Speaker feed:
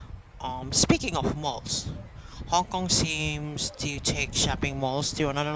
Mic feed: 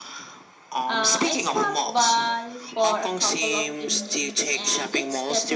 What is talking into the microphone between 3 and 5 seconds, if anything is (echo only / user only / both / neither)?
both